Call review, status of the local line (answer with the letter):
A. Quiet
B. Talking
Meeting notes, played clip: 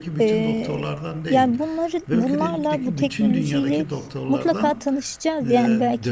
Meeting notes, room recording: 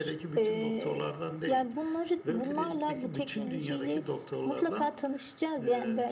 A